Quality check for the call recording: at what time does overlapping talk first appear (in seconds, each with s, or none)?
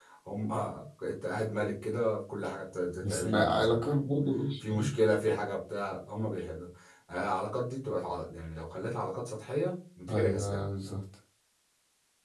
2.9 s